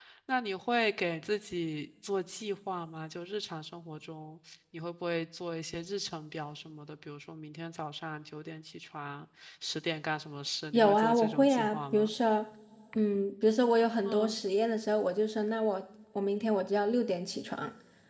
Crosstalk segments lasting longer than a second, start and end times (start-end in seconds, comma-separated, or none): 10.7-12.1